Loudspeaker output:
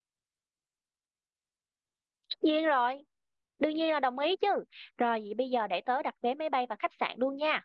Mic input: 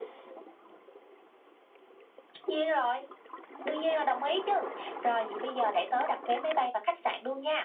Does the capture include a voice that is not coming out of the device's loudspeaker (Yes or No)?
No